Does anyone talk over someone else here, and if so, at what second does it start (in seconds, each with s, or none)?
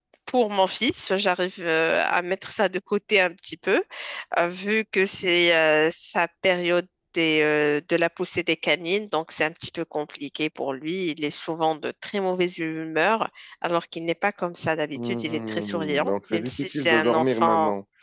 14.9 s